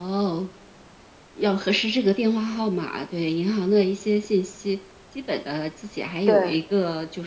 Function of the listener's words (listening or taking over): listening